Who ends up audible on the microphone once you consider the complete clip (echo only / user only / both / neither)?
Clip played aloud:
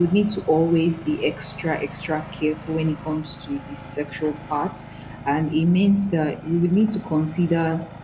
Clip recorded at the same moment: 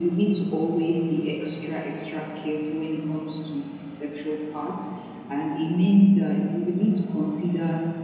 echo only